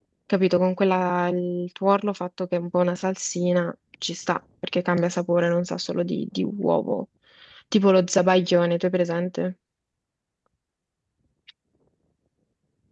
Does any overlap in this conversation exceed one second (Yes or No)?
No